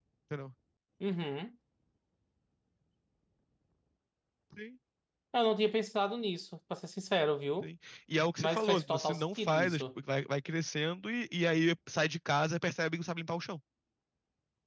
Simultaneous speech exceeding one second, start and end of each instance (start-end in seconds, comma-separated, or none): 8.4-9.8